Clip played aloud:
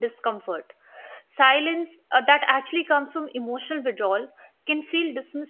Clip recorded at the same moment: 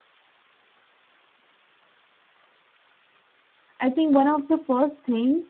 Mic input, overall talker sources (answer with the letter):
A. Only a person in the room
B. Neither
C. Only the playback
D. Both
A